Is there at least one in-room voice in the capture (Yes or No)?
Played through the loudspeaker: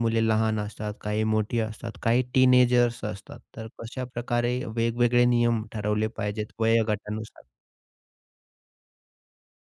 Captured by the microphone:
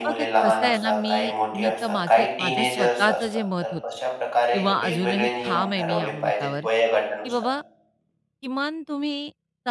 Yes